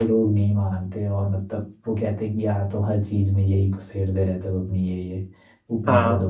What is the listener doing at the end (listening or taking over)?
listening